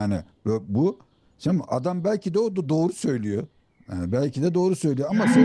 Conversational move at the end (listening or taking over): listening